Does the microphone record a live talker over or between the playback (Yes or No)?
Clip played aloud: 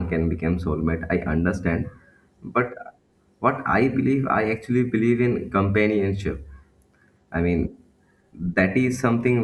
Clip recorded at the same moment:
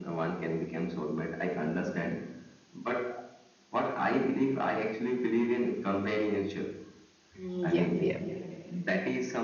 Yes